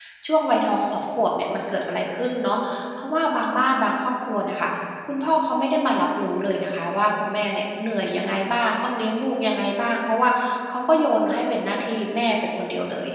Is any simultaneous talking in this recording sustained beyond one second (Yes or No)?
No